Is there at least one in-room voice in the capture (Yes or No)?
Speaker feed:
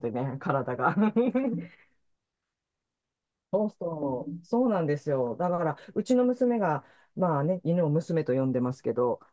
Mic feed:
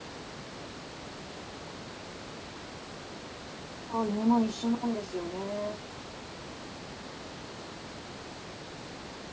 Yes